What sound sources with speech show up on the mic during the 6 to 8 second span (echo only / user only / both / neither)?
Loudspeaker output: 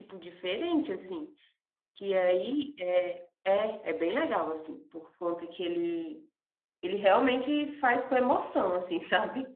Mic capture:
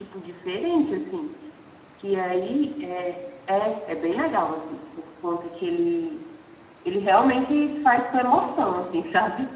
echo only